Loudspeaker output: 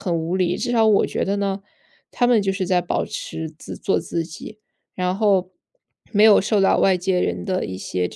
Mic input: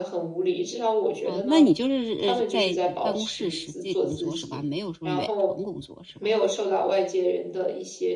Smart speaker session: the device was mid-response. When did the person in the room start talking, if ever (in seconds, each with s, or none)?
1.2 s